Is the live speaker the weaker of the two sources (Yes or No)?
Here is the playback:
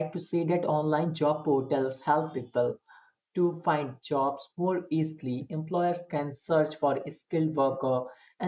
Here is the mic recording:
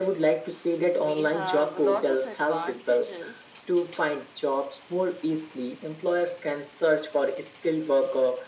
Yes